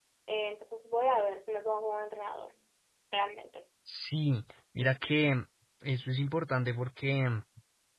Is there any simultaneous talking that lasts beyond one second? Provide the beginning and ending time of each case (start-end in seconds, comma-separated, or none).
none